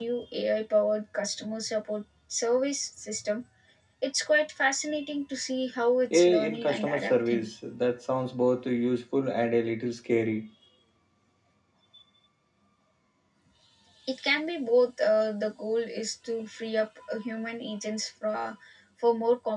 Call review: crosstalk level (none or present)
present